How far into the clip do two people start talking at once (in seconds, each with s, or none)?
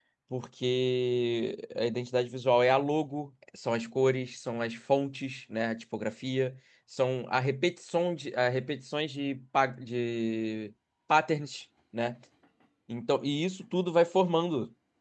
none